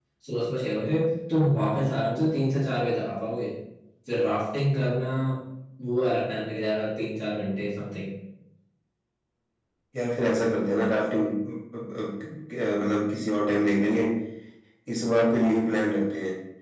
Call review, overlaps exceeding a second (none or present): none